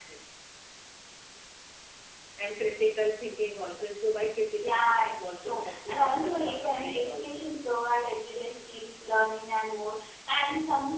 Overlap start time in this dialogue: 4.5 s

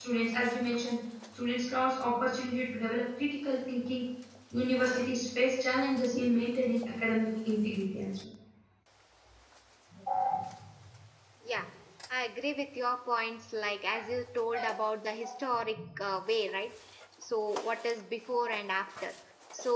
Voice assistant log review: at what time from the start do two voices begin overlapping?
none

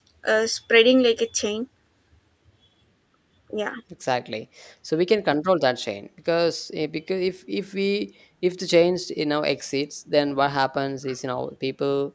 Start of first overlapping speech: none

